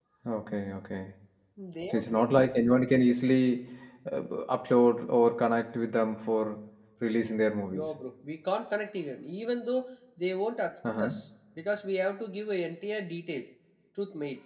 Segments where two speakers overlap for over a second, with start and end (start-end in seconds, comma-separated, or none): none